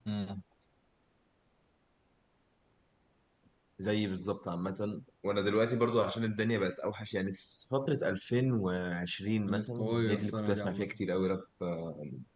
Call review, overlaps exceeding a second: present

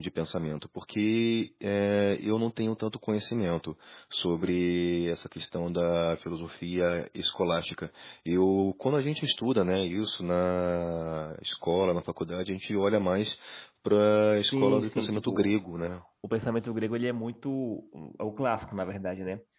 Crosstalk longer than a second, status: present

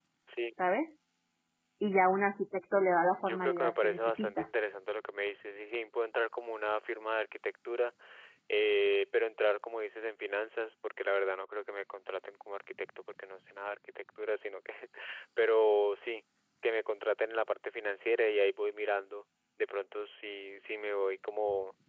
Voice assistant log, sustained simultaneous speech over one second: present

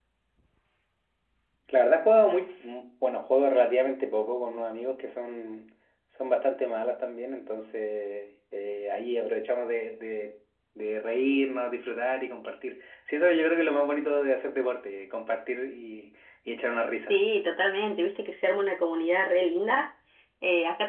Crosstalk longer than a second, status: none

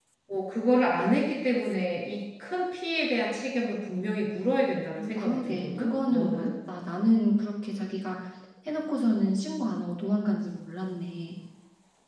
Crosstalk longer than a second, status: present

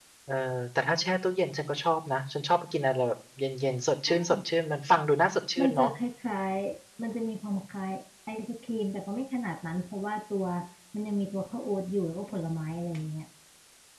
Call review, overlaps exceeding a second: none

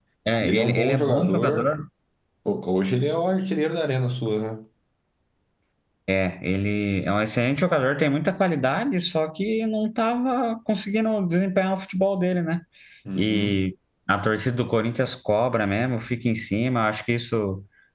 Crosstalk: present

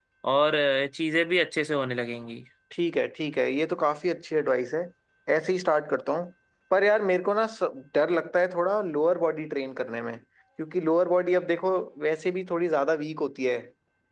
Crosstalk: none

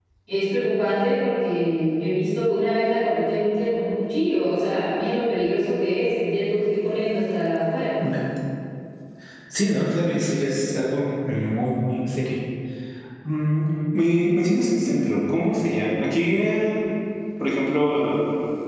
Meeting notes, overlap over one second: none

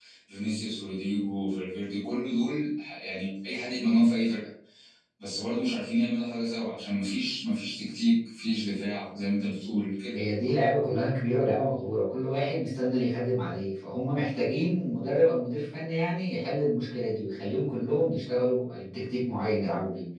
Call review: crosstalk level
none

